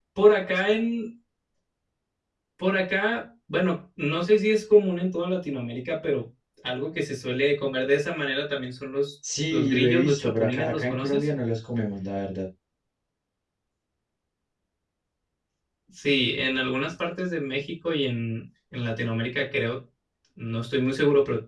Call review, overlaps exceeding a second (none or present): present